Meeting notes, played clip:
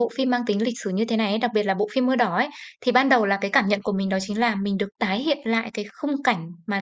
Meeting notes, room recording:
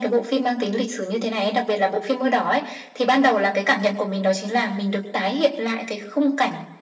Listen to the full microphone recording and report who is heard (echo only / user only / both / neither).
echo only